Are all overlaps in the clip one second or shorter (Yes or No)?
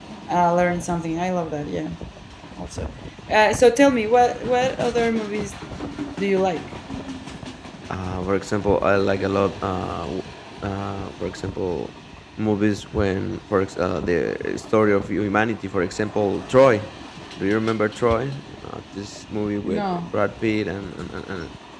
Yes